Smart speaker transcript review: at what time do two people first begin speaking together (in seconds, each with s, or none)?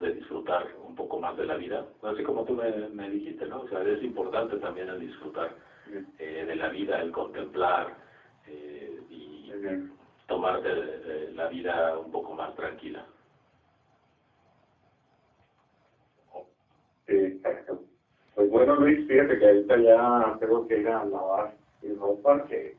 none